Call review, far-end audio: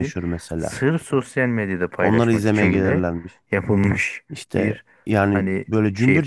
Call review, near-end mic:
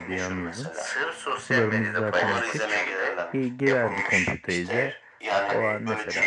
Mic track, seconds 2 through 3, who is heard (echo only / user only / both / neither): both